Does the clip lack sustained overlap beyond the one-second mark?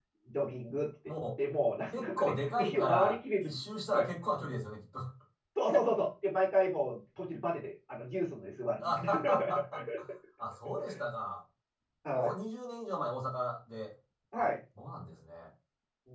No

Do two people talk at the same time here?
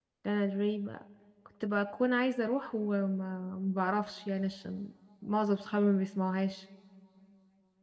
No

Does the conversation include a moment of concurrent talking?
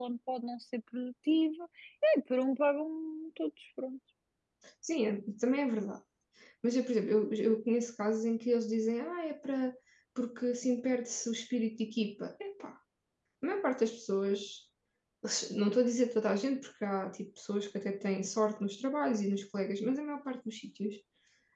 No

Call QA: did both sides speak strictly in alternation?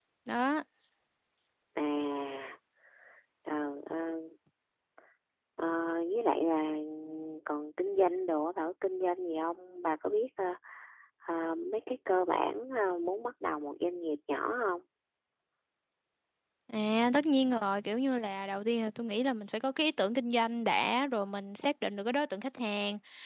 Yes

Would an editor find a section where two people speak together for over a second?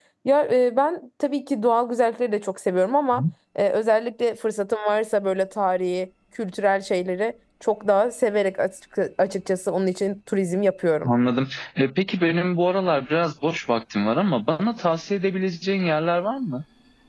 No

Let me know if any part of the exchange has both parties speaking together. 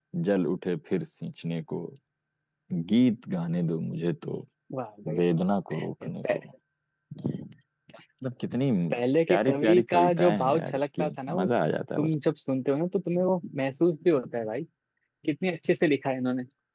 Yes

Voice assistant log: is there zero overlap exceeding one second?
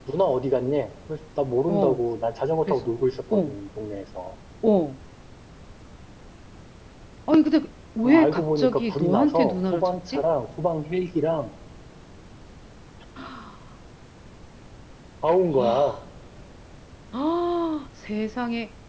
No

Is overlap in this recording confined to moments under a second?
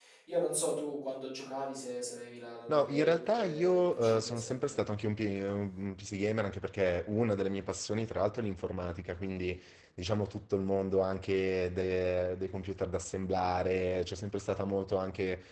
No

